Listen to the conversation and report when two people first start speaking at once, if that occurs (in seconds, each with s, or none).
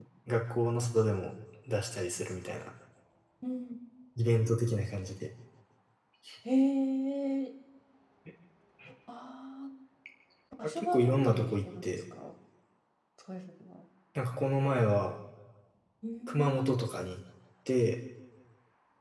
10.8 s